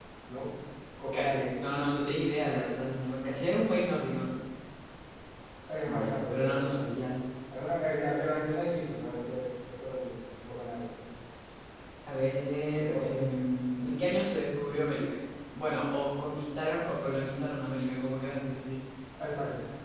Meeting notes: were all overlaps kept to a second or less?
No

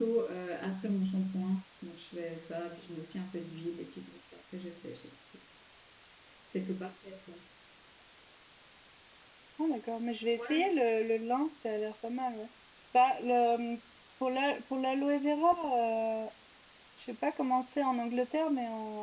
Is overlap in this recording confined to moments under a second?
Yes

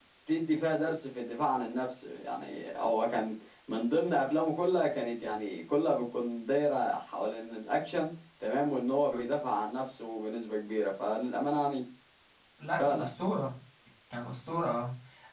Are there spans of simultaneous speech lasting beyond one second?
No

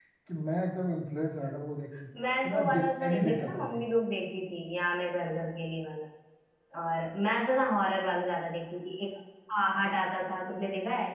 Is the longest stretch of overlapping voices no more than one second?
No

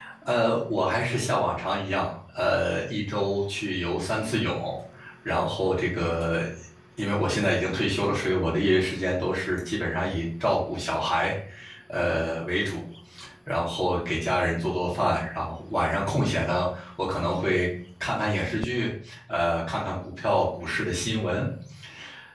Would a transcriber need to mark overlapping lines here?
No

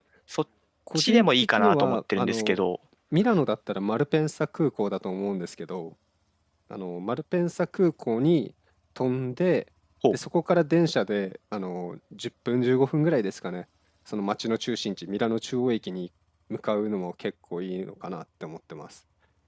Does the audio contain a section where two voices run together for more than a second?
Yes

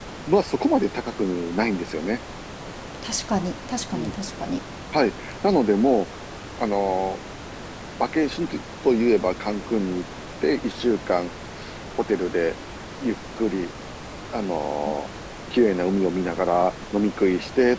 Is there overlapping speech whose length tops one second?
No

